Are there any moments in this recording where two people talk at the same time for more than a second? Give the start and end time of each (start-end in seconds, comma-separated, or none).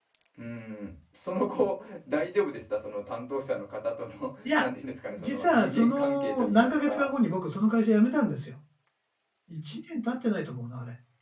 5.2-7.1